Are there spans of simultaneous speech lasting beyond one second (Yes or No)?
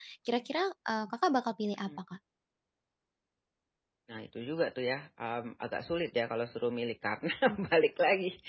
No